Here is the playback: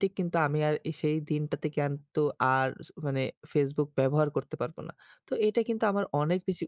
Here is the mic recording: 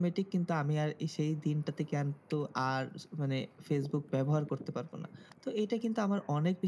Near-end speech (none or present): none